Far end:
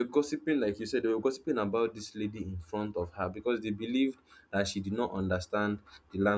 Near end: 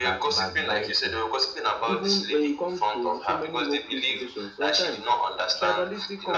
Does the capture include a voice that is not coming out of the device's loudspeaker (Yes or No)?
Yes